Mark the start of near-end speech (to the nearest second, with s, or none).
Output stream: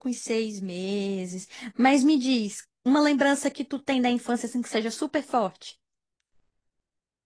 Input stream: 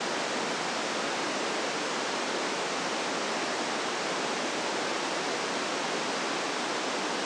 none